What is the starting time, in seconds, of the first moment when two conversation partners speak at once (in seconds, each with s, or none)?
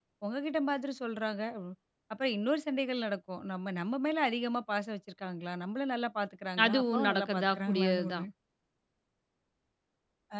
6.6 s